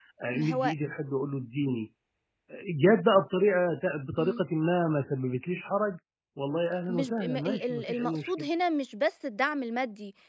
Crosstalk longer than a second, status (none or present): present